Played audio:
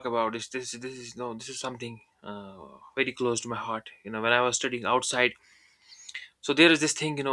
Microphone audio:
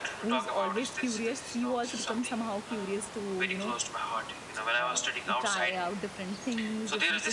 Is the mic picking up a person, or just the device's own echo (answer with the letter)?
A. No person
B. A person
B